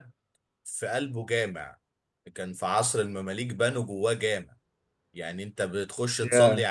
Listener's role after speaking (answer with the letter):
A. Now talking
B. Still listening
B